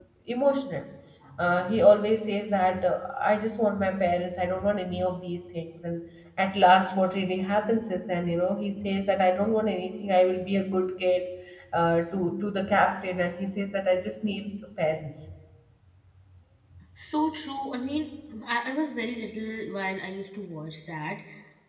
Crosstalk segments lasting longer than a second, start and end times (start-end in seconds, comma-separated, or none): none